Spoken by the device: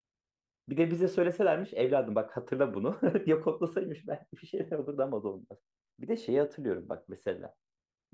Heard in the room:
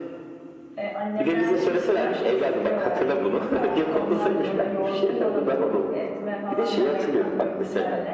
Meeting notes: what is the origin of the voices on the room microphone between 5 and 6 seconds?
both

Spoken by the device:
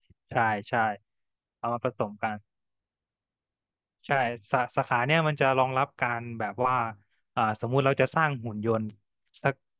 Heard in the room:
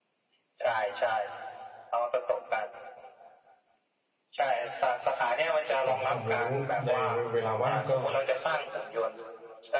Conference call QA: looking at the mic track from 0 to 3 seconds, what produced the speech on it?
echo only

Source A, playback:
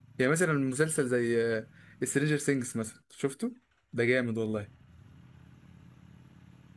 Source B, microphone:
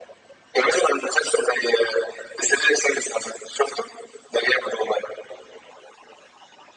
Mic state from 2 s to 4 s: echo only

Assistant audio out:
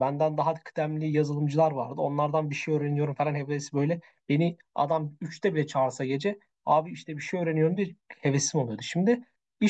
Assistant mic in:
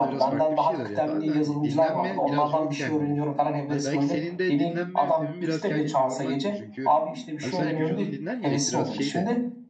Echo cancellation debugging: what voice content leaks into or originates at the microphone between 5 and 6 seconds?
both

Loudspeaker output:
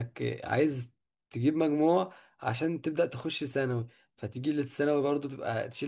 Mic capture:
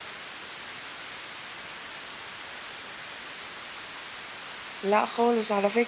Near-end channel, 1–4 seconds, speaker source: neither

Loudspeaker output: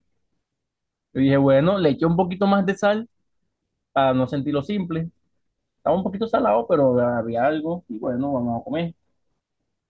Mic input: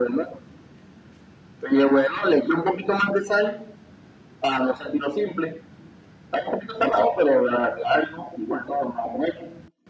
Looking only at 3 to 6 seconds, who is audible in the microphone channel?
echo only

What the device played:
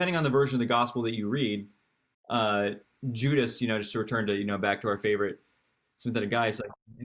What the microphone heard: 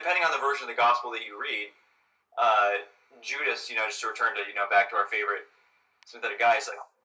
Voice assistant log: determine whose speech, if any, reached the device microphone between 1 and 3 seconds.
echo only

